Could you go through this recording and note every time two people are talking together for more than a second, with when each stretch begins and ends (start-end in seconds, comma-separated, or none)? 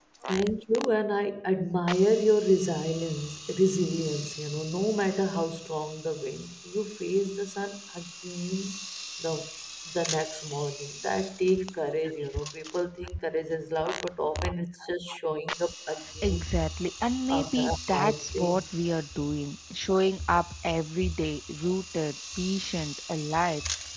17.3-18.6